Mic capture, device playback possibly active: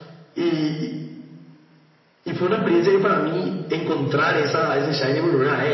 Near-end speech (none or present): none